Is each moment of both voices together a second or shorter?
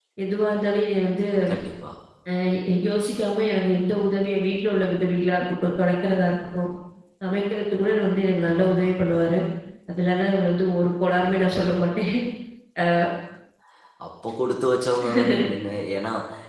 Yes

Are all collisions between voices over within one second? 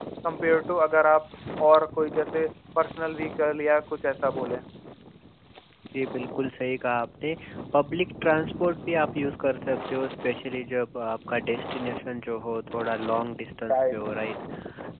Yes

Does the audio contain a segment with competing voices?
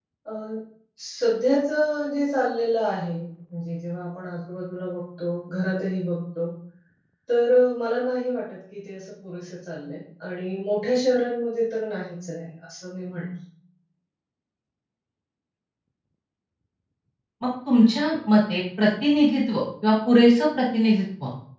No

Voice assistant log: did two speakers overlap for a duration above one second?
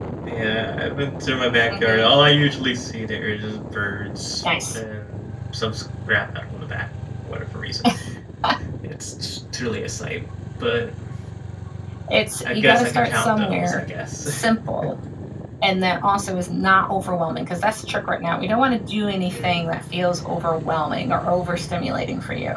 Yes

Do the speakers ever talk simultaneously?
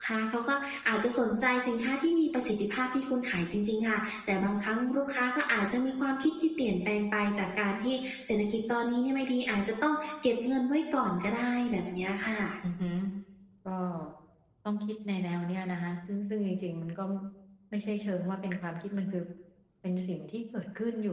No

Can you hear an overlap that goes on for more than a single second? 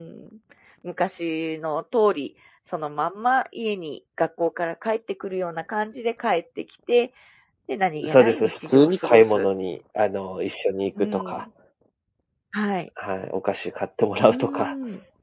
Yes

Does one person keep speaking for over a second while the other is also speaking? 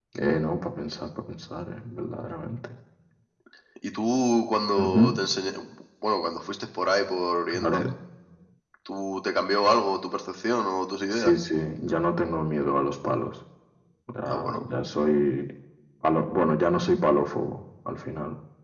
No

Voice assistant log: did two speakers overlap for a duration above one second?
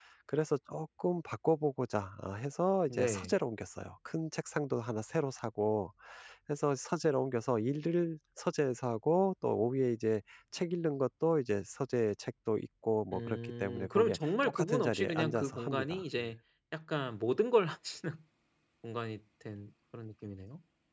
Yes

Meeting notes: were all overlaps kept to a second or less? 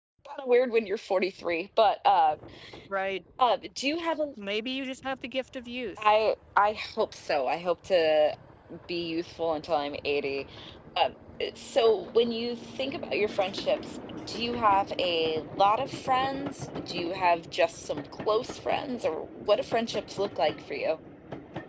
Yes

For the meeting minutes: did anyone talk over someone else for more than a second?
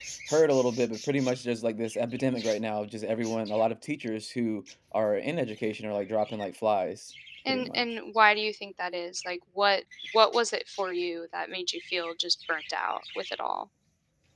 No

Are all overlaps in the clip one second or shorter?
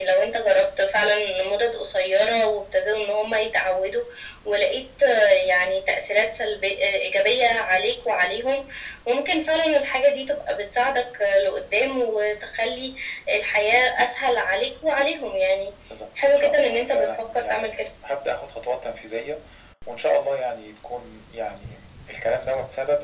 No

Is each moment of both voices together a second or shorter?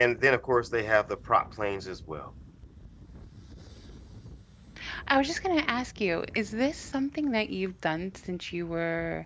Yes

